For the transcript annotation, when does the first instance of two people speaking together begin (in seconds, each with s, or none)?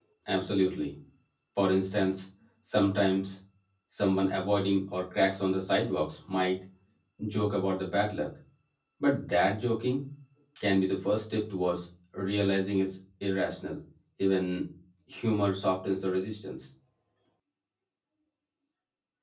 none